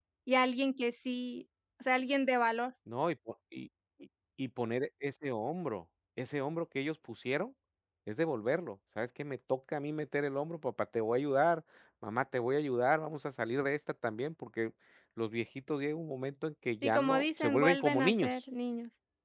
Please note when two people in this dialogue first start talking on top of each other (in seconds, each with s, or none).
16.8 s